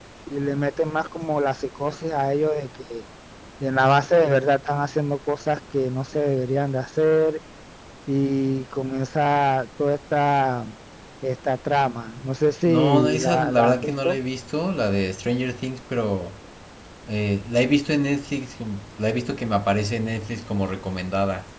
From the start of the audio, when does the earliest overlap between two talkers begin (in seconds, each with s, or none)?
12.4 s